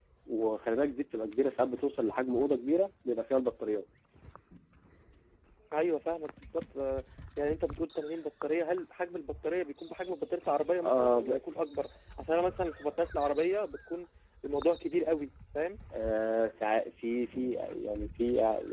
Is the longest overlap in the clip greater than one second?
No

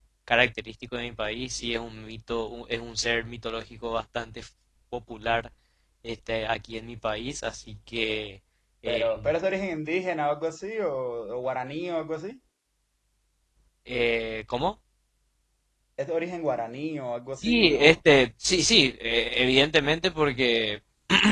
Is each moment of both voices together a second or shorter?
Yes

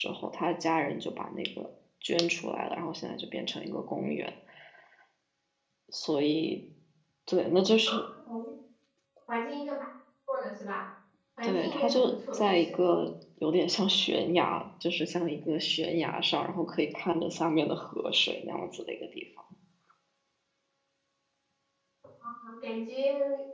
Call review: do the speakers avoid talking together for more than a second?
No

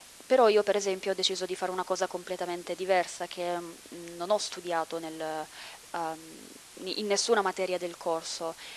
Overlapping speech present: No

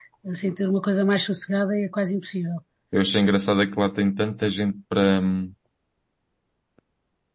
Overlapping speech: No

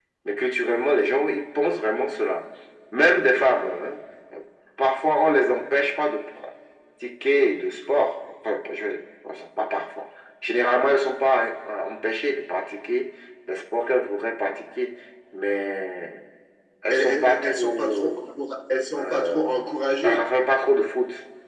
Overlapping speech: Yes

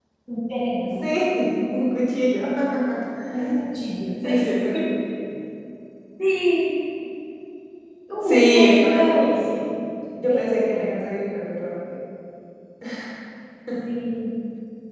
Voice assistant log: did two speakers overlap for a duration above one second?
Yes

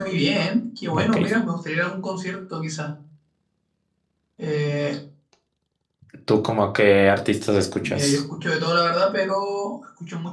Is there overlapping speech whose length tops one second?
No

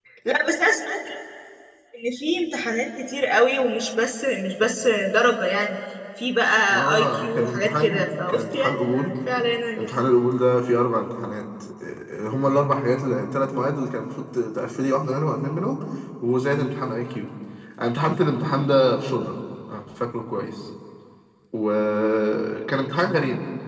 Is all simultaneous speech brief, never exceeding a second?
No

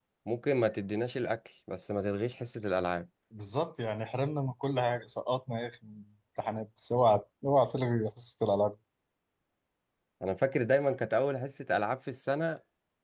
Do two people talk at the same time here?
No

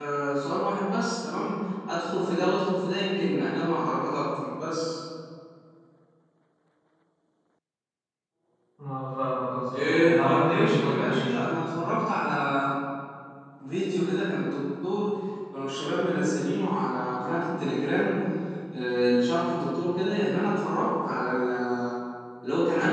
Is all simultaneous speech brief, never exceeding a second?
No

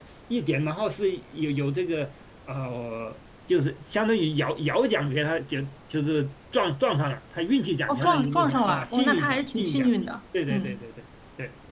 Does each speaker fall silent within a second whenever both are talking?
No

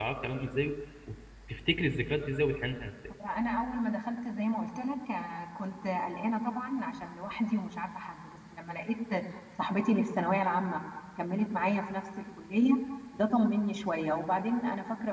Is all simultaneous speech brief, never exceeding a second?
Yes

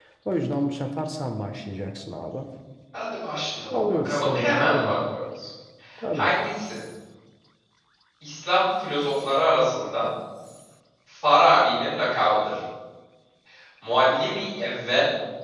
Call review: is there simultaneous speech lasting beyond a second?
Yes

